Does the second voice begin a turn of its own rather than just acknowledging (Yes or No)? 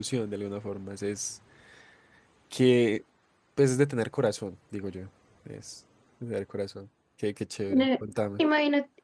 Yes